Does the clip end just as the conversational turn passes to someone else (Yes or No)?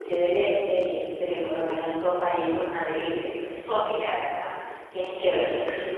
No